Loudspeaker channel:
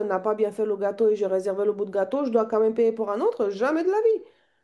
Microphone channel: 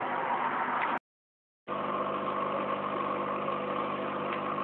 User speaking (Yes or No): No